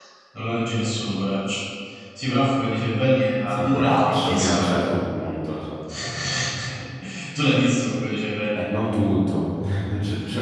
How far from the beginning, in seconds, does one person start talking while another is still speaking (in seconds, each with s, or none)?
3.5 s